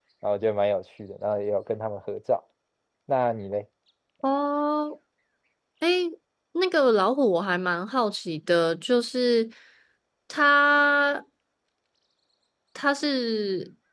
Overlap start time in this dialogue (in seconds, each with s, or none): none